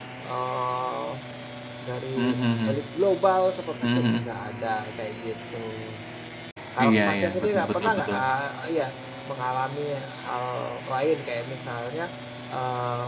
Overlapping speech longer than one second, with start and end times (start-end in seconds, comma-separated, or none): 6.8-8.2